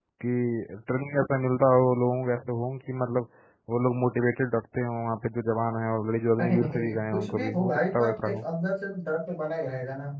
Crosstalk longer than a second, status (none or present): present